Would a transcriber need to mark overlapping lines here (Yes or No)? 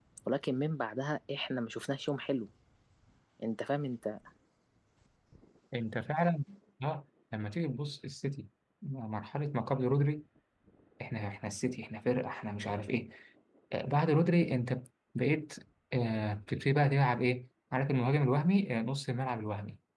No